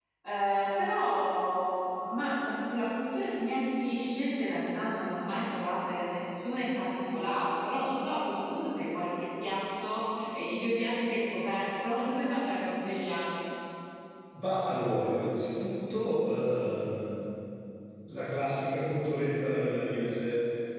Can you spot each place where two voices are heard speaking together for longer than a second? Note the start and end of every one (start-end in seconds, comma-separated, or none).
none